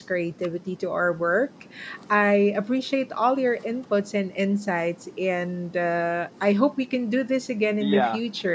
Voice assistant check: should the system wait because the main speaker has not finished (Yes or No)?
No